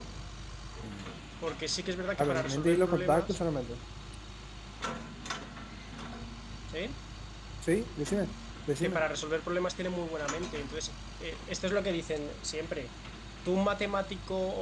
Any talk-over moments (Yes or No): Yes